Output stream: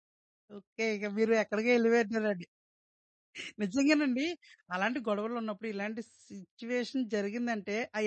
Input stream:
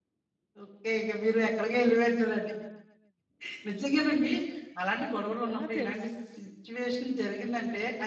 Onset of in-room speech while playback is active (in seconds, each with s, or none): 5.5 s